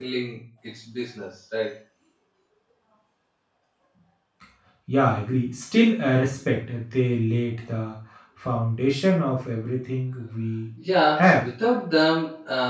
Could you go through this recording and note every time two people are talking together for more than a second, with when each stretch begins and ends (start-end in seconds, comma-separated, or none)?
none